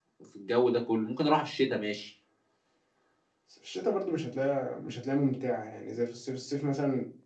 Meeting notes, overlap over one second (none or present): none